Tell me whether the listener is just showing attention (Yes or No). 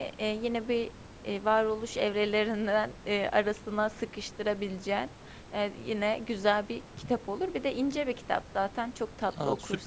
No